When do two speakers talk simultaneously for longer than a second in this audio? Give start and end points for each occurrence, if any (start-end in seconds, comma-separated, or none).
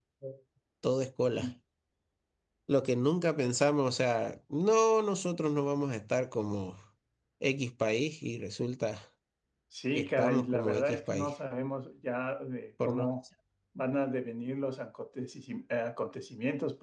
10.0-11.3